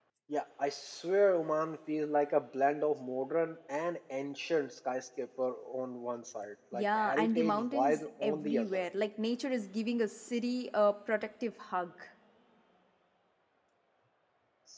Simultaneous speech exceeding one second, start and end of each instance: 6.7-8.8

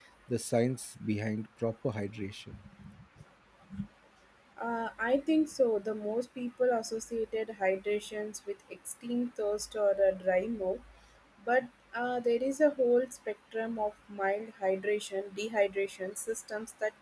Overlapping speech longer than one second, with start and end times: none

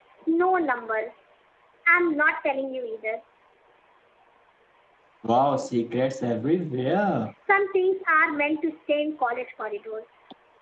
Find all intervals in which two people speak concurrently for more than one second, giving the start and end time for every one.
none

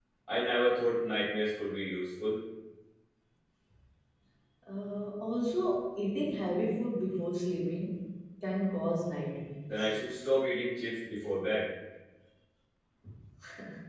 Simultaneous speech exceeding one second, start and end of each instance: none

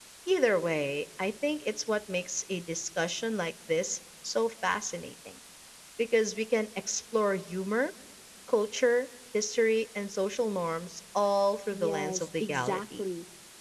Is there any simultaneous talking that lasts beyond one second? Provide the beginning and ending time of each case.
11.7-13.0

